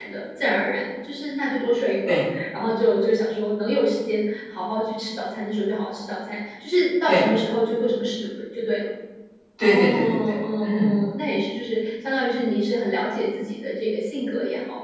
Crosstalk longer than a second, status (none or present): present